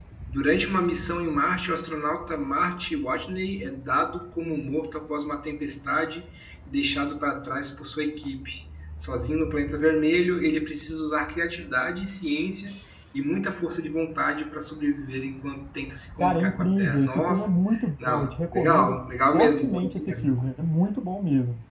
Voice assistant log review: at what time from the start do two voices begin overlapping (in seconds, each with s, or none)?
16.2 s